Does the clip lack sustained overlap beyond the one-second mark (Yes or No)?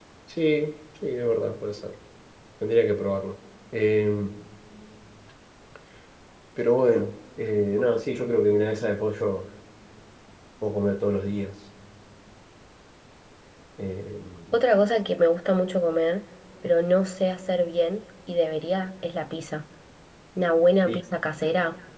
Yes